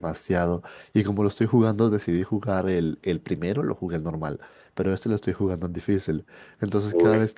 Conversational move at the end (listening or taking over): listening